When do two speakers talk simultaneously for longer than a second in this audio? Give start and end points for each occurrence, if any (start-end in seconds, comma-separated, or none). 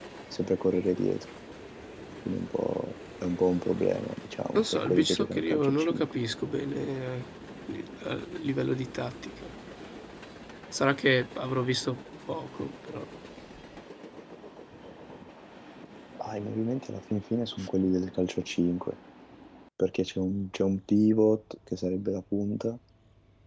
4.6-6.1